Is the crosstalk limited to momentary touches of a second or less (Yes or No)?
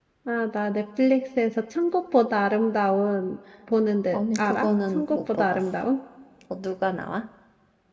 No